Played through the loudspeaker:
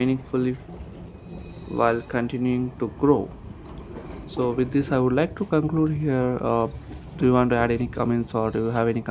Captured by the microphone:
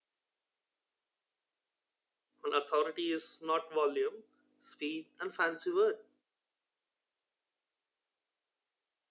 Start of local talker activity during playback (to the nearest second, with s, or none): 2 s